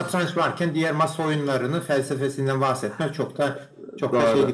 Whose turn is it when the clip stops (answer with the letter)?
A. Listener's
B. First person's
A